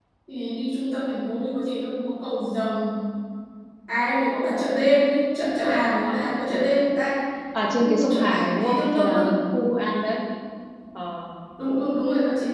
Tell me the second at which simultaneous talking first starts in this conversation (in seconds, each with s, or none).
7.8 s